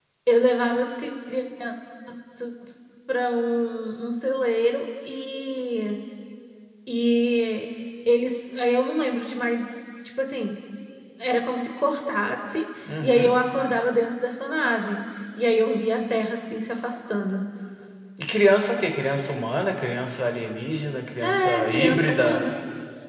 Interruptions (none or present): present